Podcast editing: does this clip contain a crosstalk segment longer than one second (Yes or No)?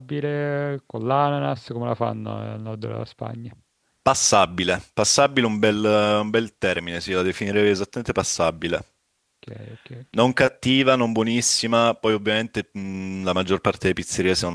No